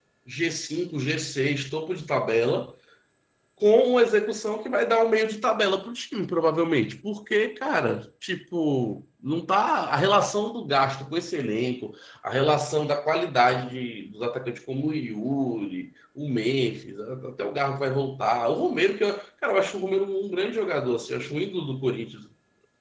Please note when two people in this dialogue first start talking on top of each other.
none

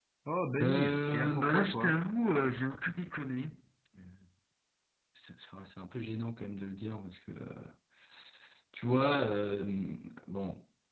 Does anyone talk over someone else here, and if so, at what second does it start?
1 s

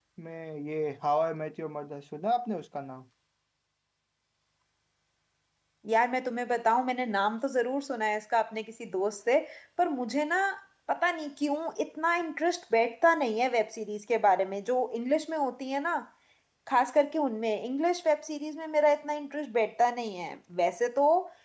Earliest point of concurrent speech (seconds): none

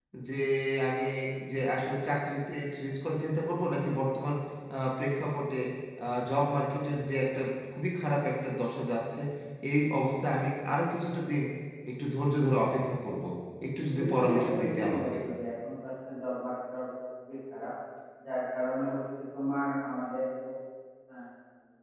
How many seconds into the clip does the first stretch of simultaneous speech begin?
14 s

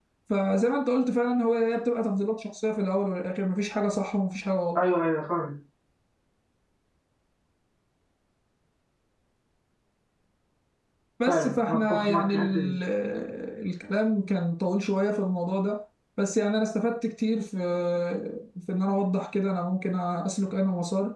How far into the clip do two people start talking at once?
11 s

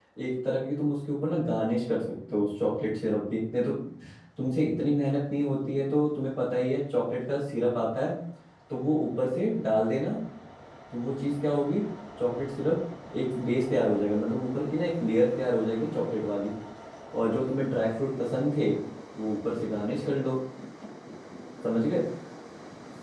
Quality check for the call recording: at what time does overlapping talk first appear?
none

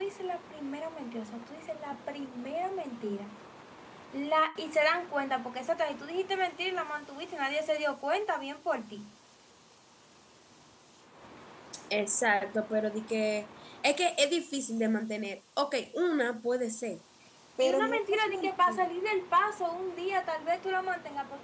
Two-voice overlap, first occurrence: 18 s

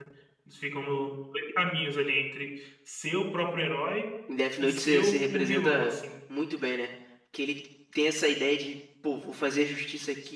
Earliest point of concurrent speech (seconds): 5 s

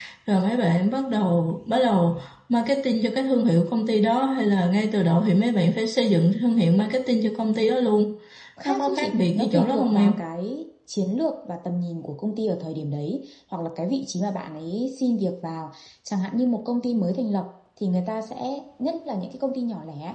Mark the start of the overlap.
9 s

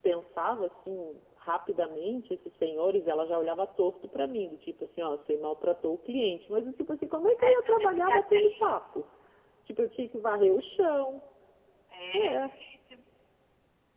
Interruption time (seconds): 7 s

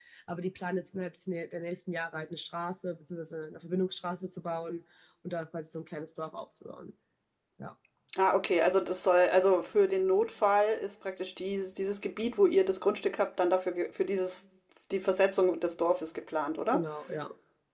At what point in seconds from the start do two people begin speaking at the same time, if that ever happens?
none

